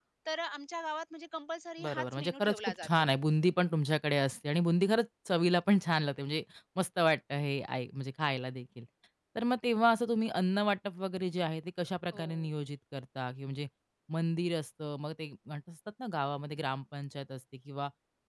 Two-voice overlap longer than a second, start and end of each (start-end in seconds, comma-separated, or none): 1.8-3.1